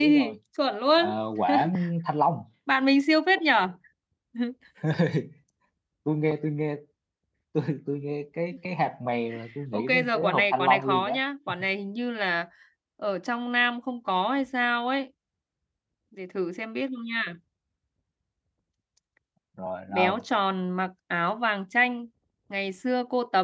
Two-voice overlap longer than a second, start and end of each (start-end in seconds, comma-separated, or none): 9.7-11.2